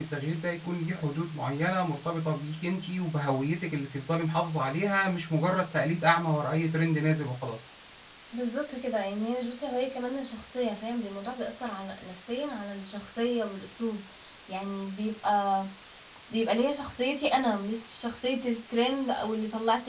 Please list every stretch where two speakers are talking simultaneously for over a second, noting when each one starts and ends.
none

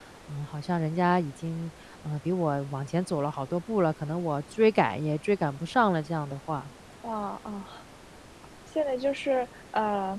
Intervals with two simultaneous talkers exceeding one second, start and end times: none

